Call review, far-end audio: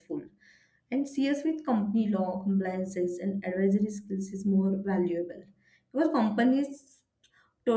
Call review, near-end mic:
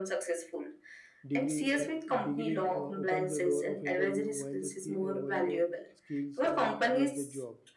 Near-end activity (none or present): present